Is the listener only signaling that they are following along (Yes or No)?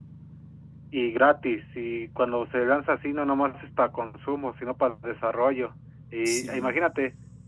Yes